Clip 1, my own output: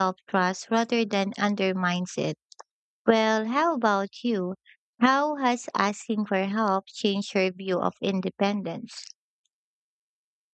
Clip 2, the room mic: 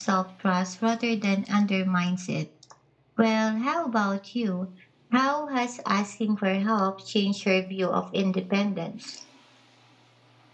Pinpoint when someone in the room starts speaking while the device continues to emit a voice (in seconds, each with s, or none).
none